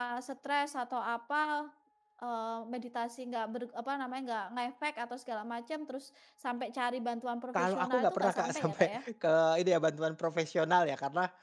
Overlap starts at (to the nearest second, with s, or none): 8 s